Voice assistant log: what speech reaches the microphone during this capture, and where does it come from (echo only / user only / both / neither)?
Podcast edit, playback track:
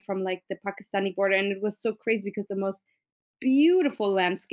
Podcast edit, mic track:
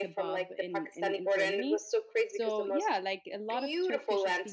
both